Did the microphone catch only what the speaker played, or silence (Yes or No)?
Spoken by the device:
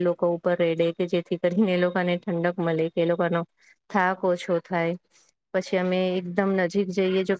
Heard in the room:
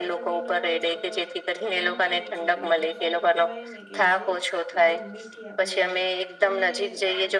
No